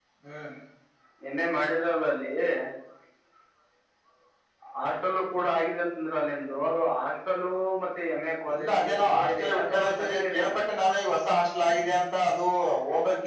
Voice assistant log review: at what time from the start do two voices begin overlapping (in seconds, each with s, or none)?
8.5 s